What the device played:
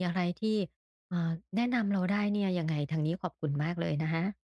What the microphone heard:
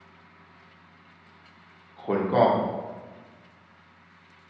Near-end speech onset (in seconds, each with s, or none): 2.1 s